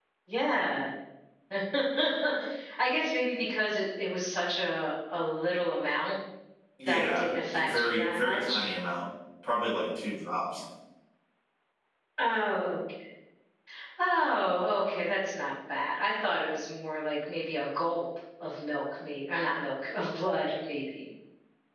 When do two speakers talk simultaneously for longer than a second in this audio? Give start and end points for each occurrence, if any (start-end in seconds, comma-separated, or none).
6.9-8.6